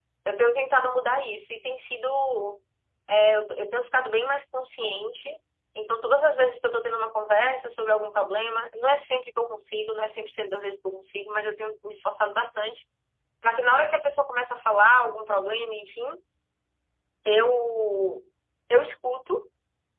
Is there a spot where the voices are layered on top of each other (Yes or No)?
No